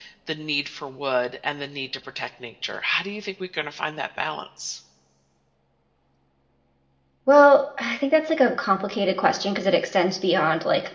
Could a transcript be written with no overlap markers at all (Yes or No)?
Yes